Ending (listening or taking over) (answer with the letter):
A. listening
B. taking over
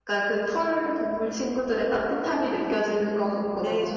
B